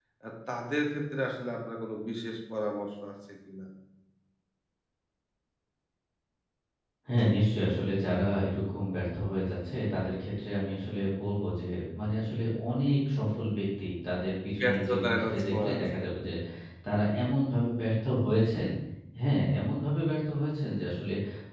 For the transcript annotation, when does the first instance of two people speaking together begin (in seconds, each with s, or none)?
14.6 s